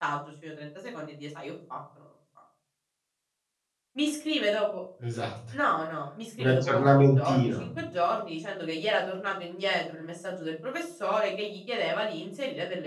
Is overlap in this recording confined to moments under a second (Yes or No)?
No